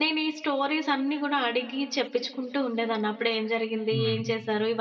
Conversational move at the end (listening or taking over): listening